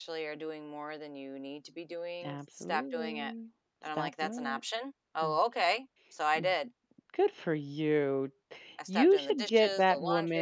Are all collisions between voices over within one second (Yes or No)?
No